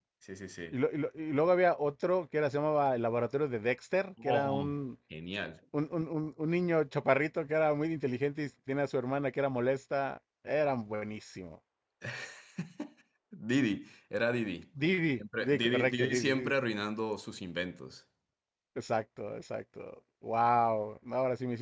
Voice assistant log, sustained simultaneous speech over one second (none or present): present